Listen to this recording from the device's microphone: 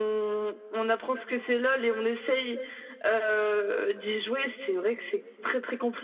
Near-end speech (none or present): none